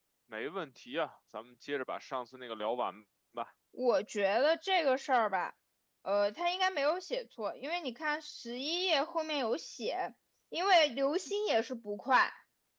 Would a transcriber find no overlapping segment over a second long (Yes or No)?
Yes